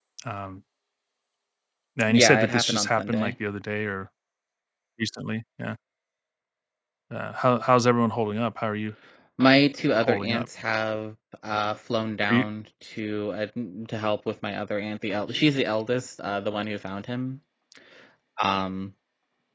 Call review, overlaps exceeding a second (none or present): present